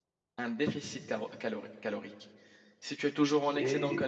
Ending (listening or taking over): listening